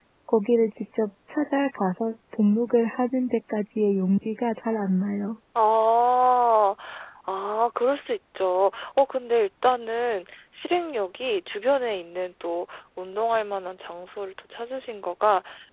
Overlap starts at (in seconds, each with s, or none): none